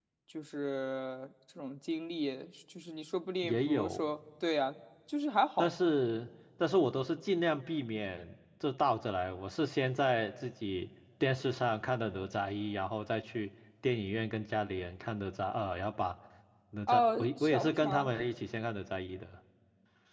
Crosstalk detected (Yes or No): Yes